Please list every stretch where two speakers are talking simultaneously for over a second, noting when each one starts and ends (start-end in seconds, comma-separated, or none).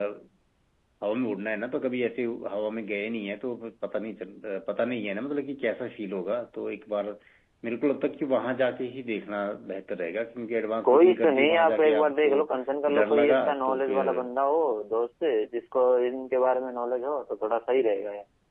10.8-12.5, 12.9-14.1